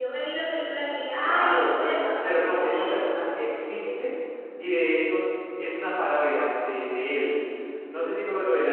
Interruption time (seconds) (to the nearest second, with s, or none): 1 s